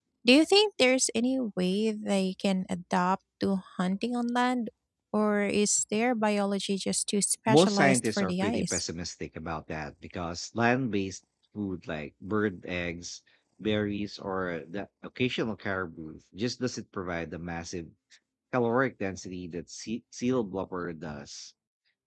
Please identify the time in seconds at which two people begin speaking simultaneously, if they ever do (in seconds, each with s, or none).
7.5 s